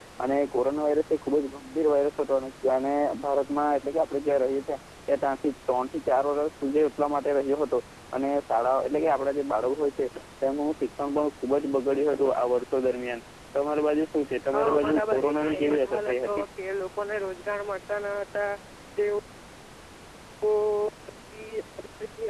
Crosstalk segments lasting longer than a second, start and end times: 14.5-16.4

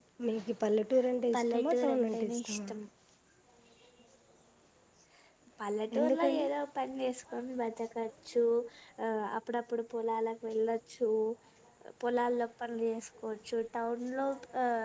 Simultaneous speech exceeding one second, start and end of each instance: 1.3-2.6

